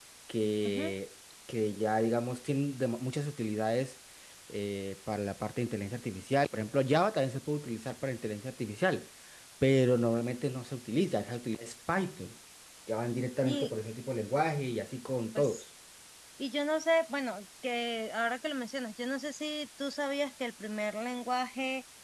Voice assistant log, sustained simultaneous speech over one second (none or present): none